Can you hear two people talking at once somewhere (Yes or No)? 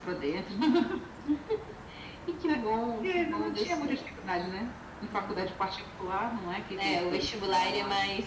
Yes